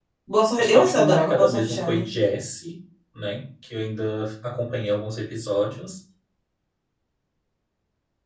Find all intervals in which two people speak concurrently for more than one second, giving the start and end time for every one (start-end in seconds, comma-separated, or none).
0.6-2.1